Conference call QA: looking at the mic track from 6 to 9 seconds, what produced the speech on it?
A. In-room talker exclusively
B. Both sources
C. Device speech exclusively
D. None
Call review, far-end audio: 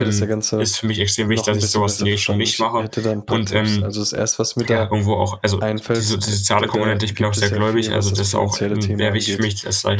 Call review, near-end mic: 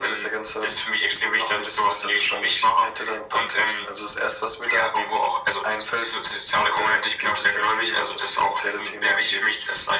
C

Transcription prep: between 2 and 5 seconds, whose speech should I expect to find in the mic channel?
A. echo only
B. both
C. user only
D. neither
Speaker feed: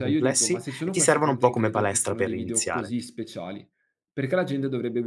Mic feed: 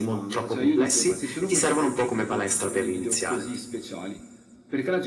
A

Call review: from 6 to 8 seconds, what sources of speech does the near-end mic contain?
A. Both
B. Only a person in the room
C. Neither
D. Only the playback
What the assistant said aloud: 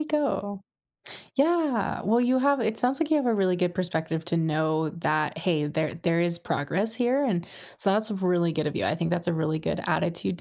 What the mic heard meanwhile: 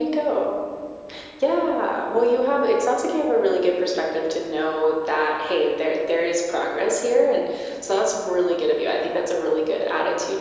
D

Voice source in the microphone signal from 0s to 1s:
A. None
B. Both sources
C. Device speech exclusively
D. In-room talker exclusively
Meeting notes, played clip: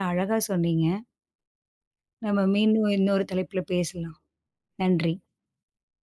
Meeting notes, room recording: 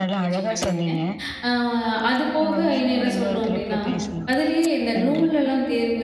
B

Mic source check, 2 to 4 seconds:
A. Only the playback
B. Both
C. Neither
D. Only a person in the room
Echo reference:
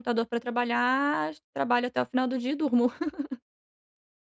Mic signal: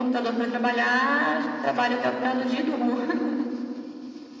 A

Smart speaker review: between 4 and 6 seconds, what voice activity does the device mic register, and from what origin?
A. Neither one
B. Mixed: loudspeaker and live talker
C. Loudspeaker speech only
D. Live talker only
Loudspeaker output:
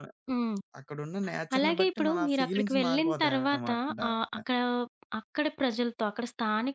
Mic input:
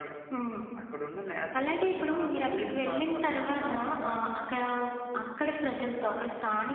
C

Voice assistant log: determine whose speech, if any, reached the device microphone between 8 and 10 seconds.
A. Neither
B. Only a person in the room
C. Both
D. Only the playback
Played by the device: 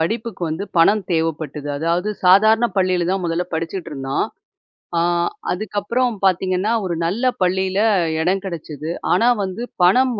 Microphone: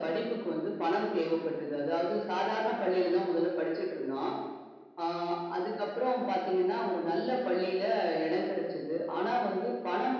D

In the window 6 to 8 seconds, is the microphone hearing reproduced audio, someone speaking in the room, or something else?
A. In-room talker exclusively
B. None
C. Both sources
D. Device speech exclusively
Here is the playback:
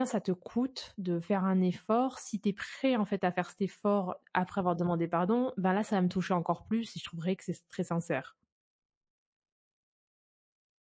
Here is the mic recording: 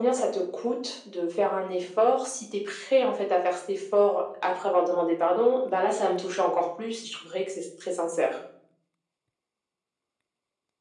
D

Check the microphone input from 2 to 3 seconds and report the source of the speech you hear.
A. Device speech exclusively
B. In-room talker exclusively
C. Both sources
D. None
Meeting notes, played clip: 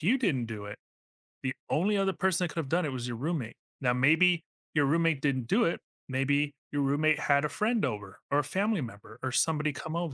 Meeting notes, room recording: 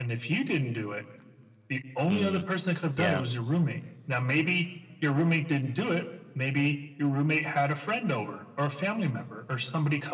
C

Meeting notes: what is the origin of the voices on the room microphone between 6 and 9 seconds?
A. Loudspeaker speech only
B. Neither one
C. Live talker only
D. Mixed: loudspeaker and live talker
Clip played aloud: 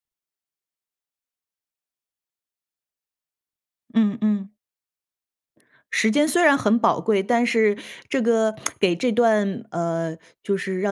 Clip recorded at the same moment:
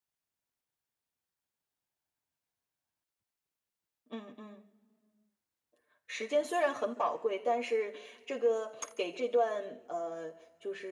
A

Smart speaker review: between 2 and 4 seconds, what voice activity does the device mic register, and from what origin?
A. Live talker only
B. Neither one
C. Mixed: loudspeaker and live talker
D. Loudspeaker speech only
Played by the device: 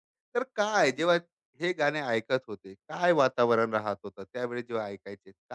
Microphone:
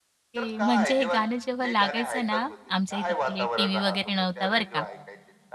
C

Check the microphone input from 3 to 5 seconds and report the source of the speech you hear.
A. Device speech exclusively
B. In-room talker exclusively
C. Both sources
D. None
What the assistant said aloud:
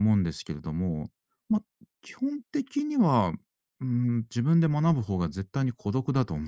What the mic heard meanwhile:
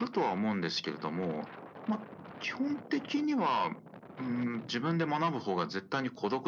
A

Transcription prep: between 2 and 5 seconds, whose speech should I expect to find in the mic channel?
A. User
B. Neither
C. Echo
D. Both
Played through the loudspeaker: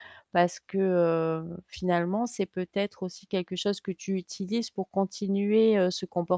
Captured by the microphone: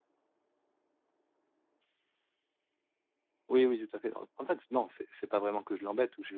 A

